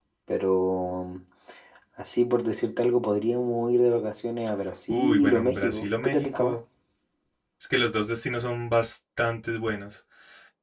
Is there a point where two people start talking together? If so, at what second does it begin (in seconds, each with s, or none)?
4.9 s